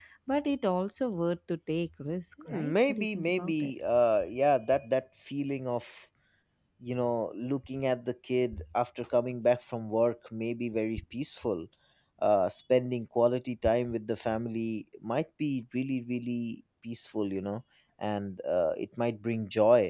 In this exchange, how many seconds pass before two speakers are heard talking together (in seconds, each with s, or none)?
2.5 s